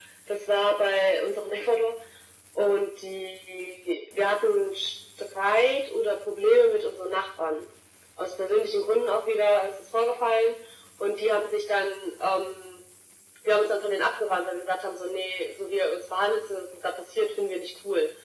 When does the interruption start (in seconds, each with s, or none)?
none